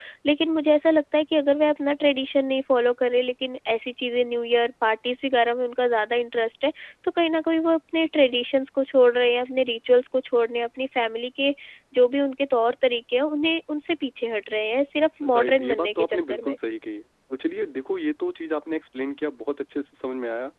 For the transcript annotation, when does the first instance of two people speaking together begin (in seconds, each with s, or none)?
15.2 s